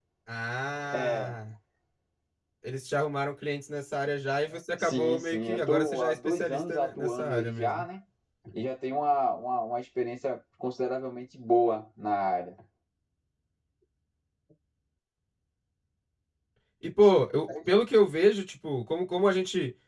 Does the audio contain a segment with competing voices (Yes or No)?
Yes